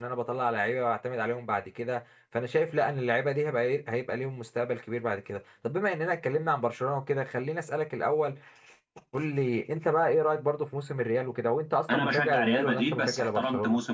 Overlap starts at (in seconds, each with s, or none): 11.9 s